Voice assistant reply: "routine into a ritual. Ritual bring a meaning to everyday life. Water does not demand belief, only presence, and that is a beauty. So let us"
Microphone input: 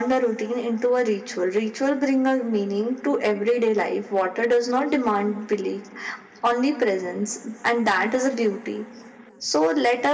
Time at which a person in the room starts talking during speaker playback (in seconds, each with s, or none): none